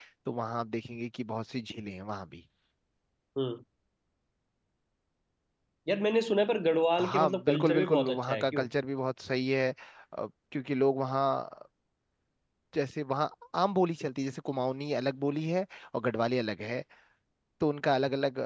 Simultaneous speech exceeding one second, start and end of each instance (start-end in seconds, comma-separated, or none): 7.0-8.7